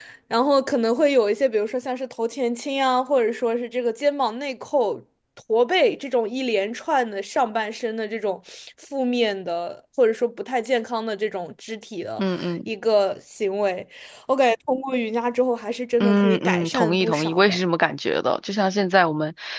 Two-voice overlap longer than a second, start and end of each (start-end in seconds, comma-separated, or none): 16.0-17.6